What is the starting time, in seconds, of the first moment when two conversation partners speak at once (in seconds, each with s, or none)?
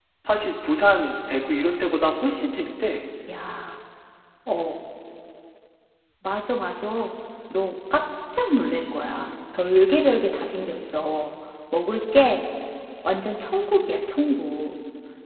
none